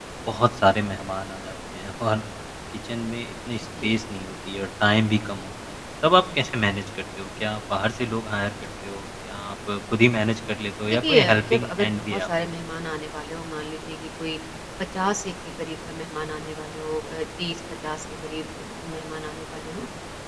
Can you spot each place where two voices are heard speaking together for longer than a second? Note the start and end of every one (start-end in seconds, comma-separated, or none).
10.9-12.3